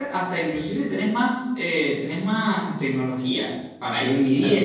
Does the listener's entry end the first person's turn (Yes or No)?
Yes